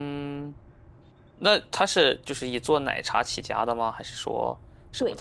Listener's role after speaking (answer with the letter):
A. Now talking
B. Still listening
A